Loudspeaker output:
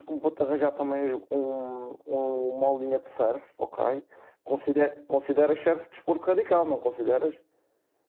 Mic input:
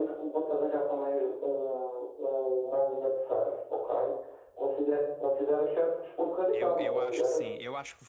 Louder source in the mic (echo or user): echo